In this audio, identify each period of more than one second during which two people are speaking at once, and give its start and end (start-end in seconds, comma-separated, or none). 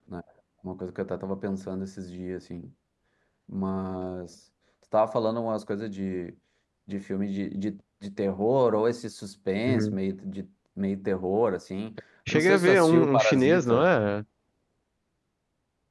12.3-13.9